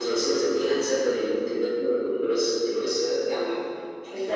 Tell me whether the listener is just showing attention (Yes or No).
No